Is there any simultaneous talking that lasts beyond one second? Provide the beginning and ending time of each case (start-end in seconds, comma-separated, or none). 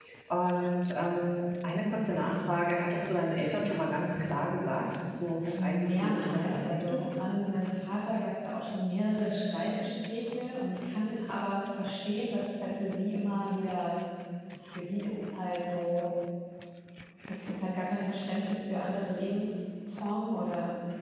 5.5-7.0